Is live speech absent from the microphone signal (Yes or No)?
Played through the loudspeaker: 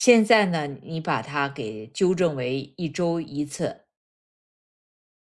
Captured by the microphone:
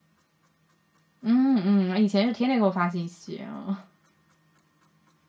No